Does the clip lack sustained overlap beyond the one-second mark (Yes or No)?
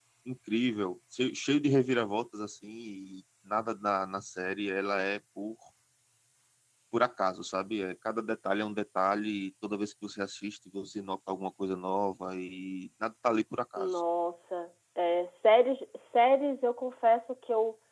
Yes